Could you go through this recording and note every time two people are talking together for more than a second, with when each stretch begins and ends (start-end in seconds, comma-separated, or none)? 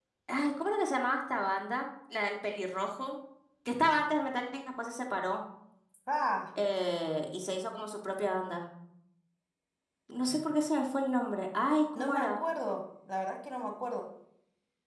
none